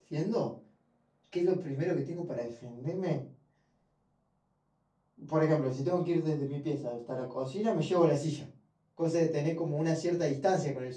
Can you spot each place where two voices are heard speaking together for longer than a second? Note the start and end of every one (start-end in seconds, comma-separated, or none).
none